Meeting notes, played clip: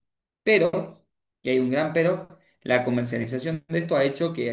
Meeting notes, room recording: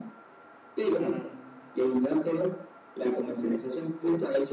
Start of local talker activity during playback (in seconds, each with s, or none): 1.0 s